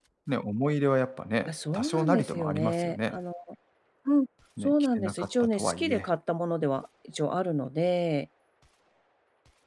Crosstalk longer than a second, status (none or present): present